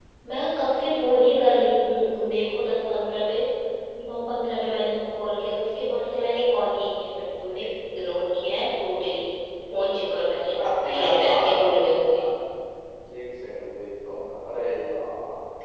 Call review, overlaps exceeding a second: present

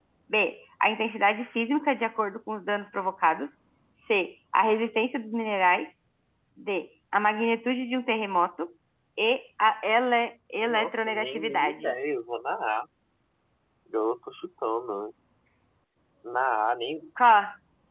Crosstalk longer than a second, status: present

